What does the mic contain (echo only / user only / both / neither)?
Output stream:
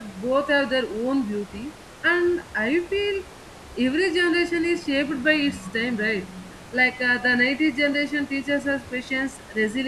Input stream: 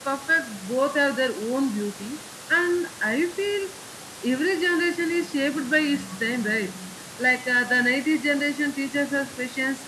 echo only